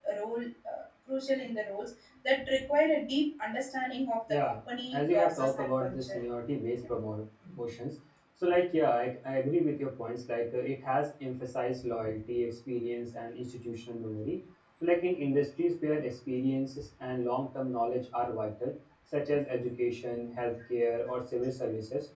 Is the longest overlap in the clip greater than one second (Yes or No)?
Yes